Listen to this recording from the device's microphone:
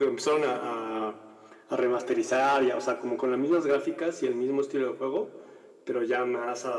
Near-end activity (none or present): none